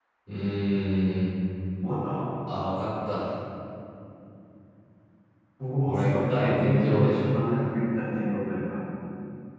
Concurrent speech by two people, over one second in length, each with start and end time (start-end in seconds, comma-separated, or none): 5.8-7.3